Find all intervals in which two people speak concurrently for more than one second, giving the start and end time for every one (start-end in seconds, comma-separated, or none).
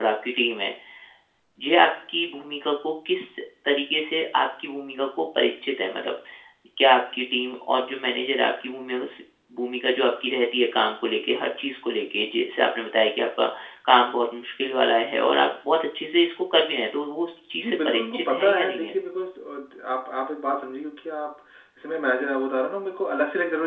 17.6-18.9